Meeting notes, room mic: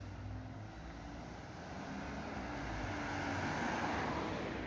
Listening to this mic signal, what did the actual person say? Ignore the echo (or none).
none